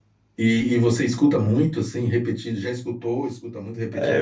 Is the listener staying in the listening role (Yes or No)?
No